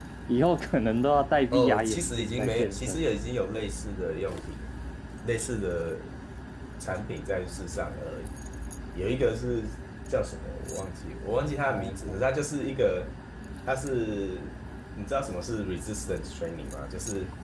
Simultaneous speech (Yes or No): Yes